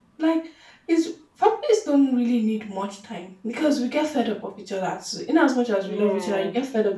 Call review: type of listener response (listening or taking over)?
listening